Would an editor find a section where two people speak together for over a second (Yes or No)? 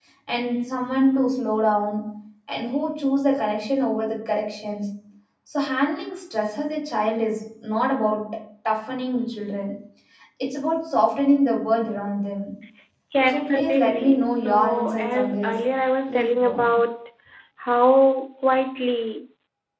Yes